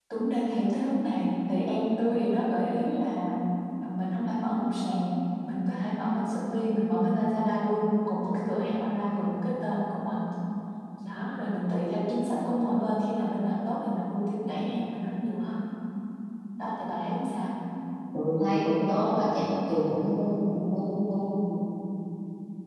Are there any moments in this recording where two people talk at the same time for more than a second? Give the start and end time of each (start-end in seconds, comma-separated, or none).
none